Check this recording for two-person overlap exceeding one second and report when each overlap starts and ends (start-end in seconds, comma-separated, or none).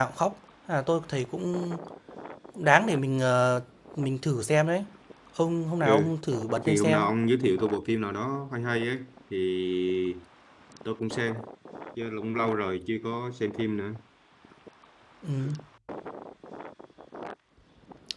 none